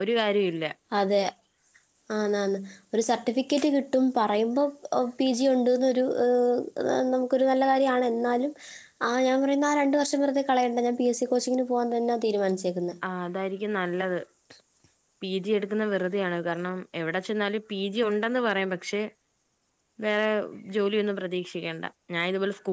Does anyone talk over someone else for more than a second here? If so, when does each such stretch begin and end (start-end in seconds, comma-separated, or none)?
none